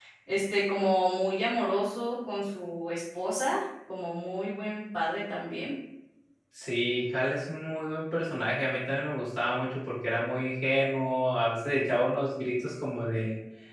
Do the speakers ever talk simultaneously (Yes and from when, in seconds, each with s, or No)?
No